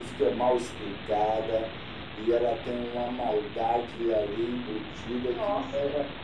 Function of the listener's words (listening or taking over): listening